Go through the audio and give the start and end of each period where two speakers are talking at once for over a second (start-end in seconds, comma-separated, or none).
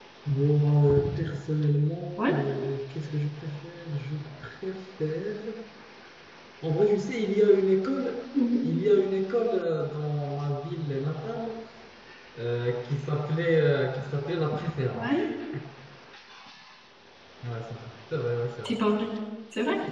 none